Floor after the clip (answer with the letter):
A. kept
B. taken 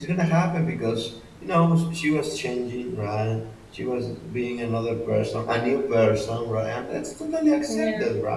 A